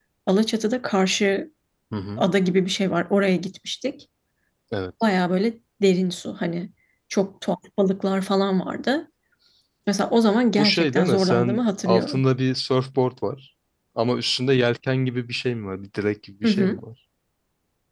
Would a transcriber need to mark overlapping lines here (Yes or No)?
Yes